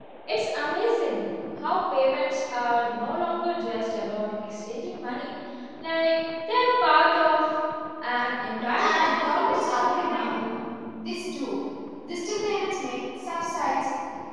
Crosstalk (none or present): present